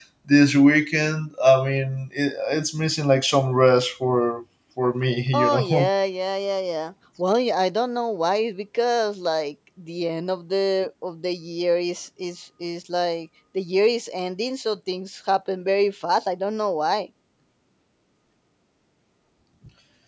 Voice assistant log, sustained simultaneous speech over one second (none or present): none